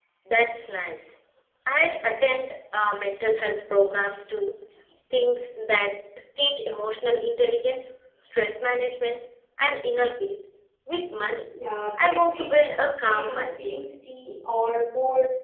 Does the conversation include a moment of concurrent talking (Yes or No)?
Yes